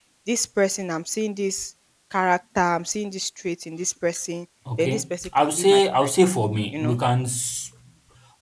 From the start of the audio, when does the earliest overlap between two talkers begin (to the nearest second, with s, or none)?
5 s